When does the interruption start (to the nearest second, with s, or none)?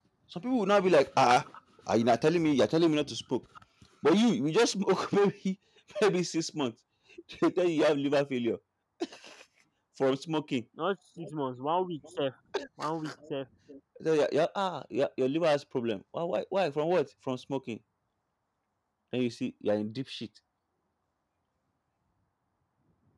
none